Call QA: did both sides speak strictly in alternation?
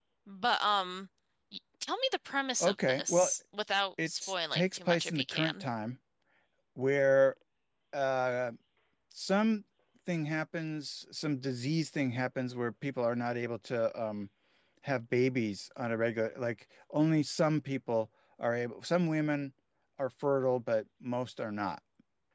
No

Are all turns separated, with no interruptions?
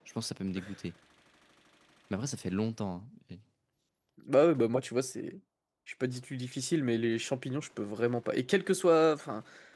Yes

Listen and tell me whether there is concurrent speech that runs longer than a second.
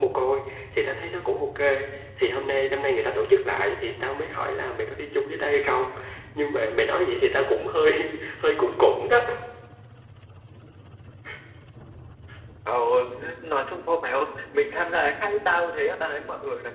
No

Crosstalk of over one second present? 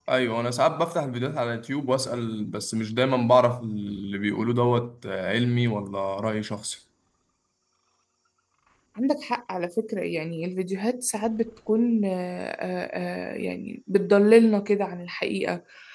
No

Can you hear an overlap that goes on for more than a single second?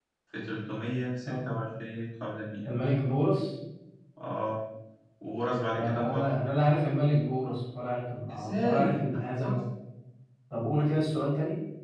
Yes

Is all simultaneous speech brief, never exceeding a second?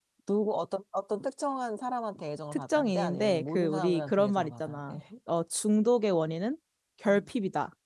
No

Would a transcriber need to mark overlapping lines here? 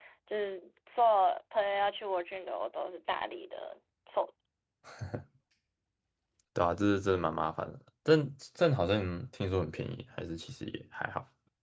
No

